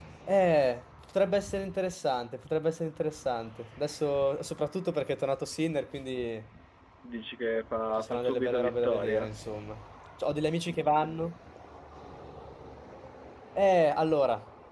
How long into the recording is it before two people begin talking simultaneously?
8.0 s

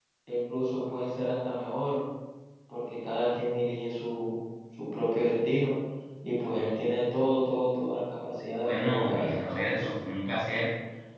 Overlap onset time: 8.6 s

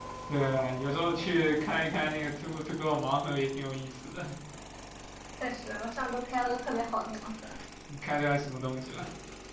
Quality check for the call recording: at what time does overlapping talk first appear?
none

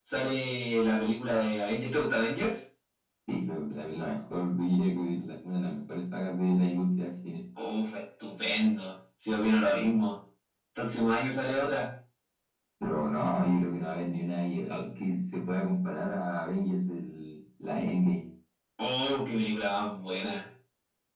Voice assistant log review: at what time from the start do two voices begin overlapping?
none

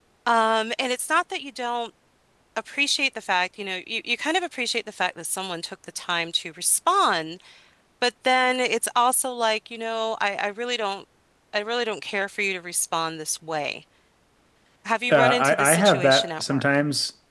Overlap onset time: 15.1 s

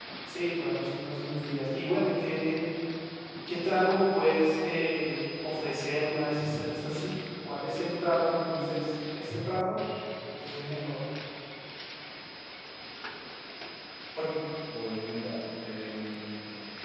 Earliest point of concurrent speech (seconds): none

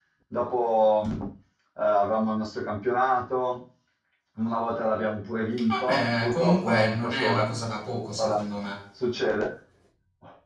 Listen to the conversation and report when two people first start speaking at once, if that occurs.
5.7 s

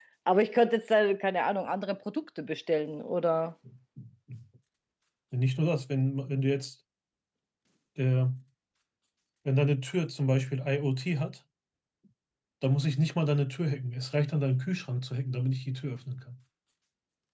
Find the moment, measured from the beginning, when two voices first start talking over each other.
none

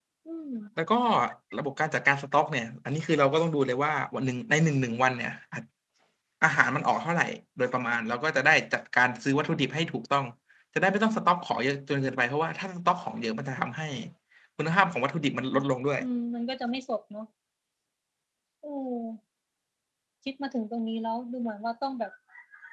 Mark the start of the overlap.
none

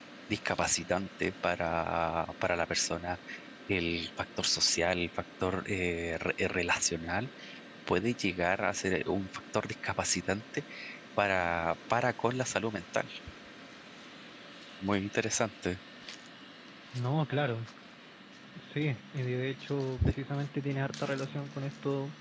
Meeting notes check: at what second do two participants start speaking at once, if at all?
none

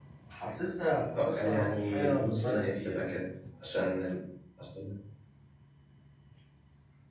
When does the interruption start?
1.1 s

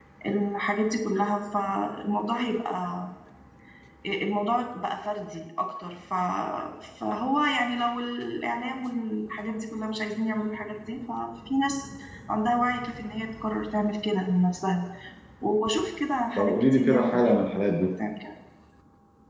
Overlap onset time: 16.4 s

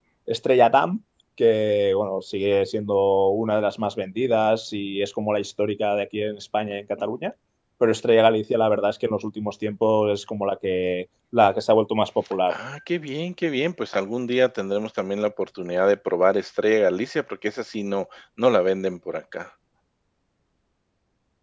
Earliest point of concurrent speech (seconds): none

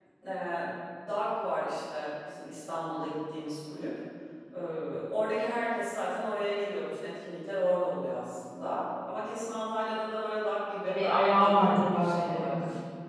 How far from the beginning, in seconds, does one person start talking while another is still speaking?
10.7 s

